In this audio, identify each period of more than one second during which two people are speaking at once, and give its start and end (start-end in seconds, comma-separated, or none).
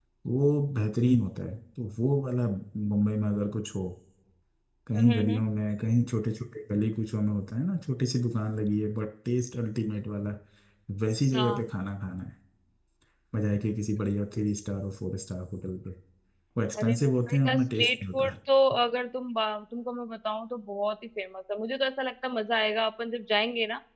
16.8-18.3